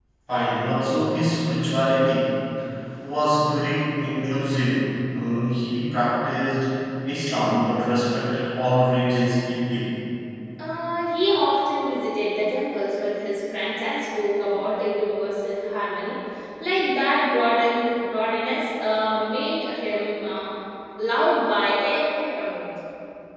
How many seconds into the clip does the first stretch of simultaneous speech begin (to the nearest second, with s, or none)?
none